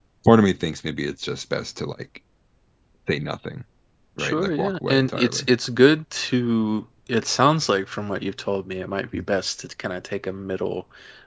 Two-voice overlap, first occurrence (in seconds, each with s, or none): 4.2 s